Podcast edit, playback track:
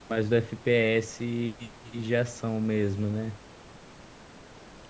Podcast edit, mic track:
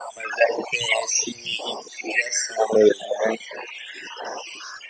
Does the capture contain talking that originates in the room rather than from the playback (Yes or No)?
No